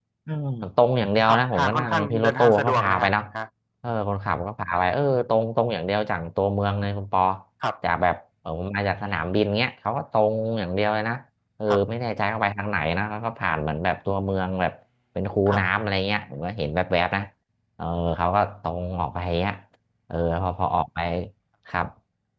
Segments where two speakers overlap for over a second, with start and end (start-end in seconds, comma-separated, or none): 1.3-3.1